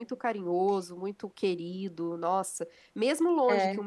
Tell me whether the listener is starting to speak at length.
No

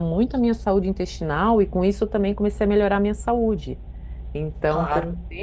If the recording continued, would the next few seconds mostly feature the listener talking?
Yes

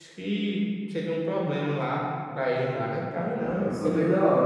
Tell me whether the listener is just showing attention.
No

